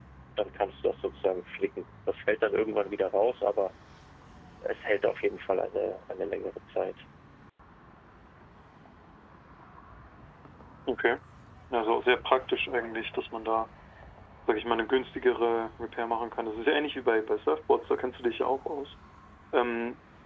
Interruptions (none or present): none